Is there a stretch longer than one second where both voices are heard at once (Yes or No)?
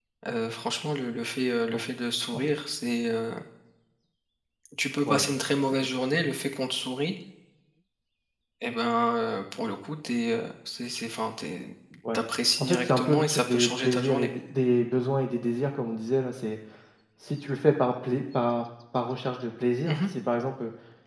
Yes